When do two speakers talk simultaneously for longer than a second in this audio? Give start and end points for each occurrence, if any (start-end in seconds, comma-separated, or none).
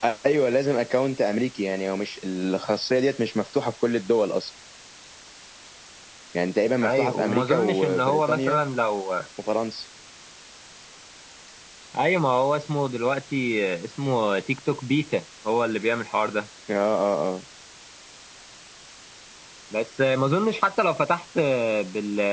6.8-8.6